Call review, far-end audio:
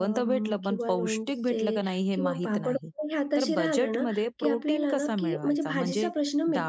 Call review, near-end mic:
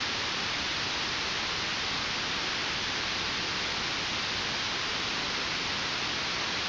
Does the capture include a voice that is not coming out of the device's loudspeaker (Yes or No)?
No